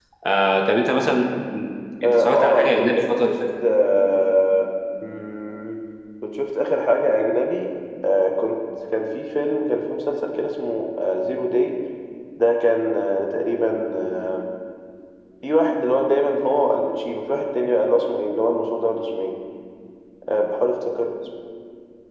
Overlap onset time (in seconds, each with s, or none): 2.0 s